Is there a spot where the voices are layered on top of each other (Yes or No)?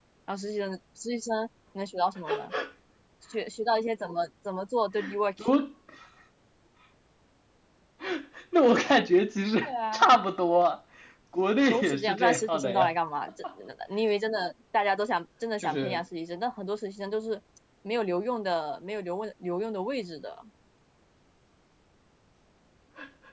Yes